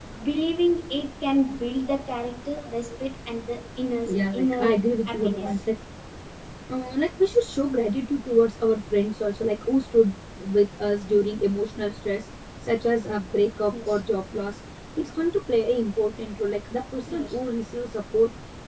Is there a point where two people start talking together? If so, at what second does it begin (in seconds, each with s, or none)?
4.0 s